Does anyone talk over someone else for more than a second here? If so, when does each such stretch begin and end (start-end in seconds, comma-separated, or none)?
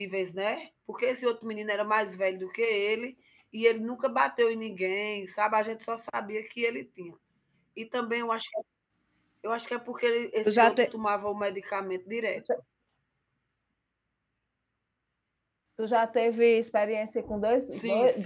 none